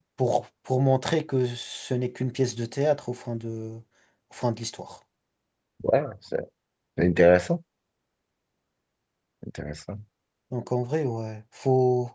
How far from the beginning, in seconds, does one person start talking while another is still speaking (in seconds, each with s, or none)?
none